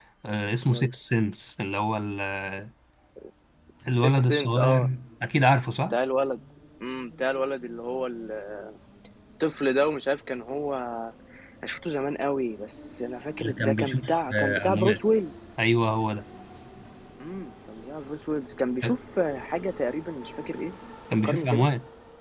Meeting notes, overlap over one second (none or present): present